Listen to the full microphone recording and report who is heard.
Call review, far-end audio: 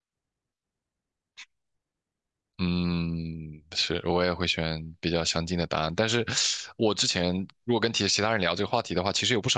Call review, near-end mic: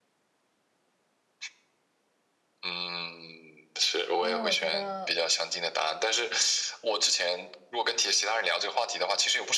both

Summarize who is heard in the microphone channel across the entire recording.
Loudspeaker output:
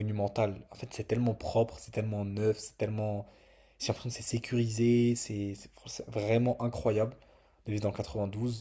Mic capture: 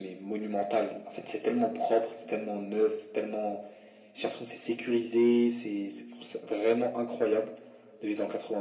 echo only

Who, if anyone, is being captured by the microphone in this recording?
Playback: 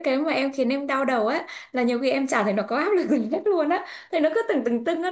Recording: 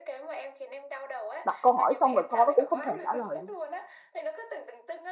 both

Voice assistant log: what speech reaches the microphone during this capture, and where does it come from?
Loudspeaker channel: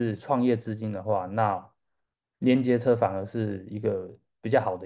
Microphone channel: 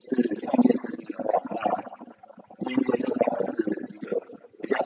echo only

